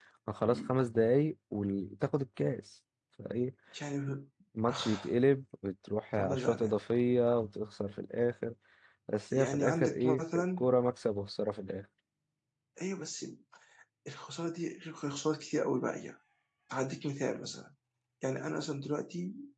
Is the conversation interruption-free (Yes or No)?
No